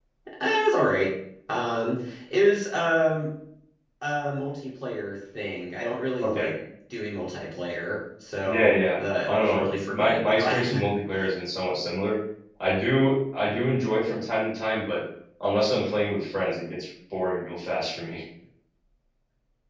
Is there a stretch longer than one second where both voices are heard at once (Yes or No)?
Yes